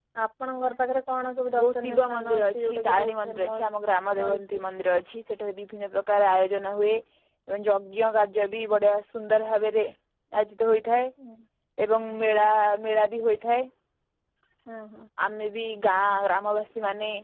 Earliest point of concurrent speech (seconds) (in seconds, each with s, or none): 1.6 s